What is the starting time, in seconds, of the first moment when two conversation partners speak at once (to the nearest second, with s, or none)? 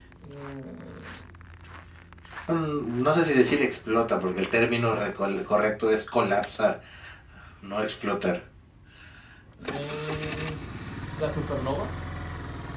none